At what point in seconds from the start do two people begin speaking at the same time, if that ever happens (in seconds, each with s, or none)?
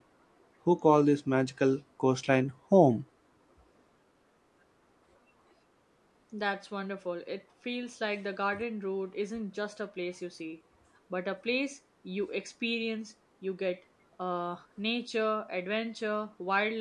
none